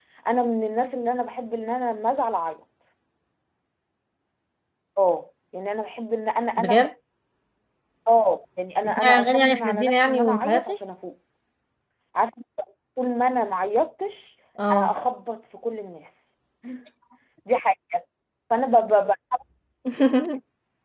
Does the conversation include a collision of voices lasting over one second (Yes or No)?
Yes